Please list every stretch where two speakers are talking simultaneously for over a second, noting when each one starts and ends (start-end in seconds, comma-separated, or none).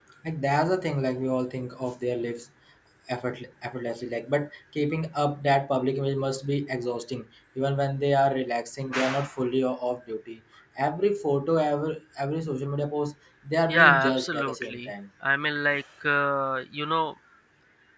13.7-14.9